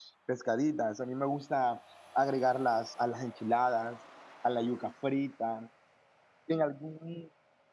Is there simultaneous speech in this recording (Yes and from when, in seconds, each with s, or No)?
No